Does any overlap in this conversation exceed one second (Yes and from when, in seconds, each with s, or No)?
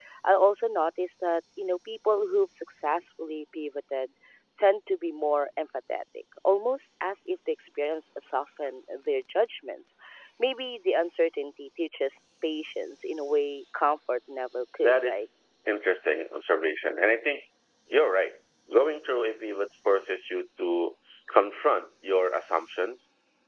No